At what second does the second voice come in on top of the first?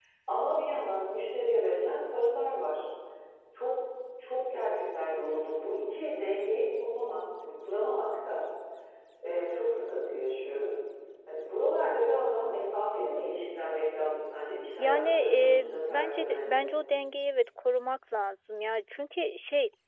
14.8 s

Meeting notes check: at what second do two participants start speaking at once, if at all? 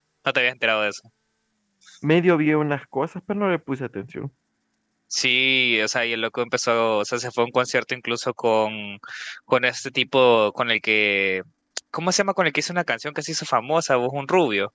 none

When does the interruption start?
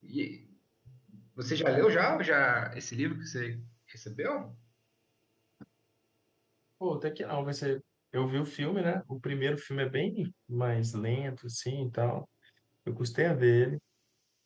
none

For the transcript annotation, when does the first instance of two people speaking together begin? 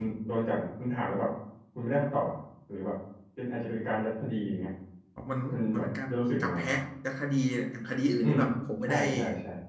5.5 s

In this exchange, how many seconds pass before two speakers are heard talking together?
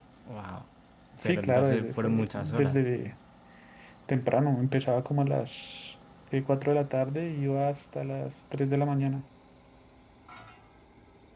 1.2 s

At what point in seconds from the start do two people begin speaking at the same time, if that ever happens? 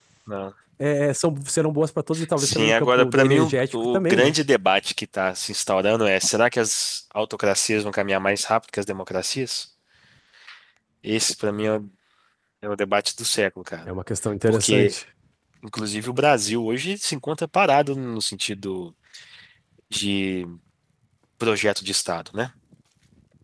2.4 s

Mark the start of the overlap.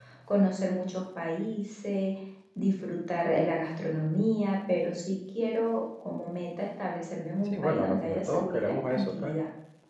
7.5 s

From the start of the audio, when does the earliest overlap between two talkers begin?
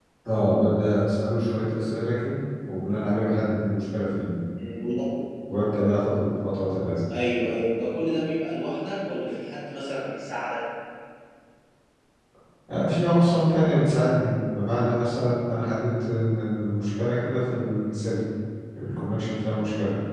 none

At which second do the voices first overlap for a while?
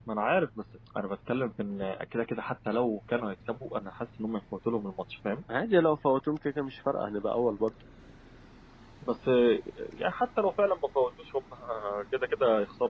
none

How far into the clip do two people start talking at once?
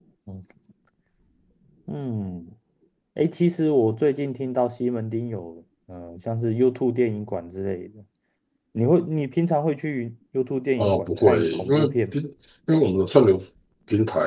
10.8 s

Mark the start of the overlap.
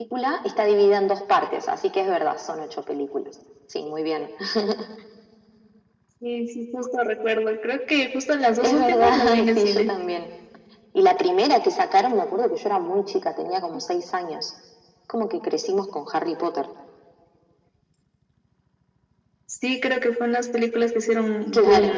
8.6 s

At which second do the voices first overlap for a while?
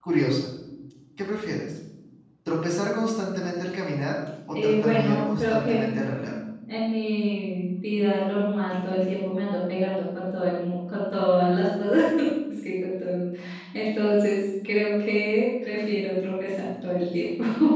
4.5 s

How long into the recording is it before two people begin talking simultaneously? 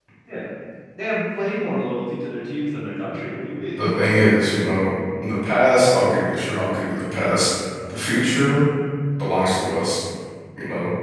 none

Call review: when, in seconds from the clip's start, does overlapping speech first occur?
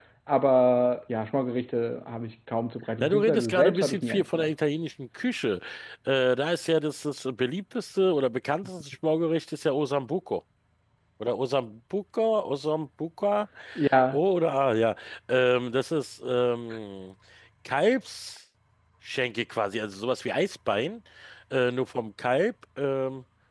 3.0 s

